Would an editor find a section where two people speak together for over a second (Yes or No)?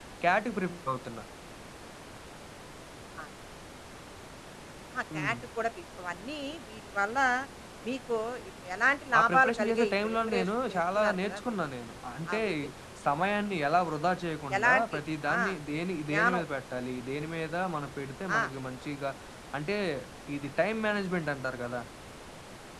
Yes